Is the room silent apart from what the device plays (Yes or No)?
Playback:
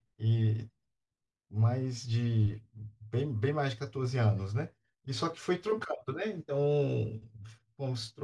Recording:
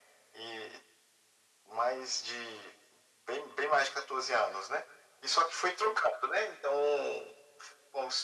Yes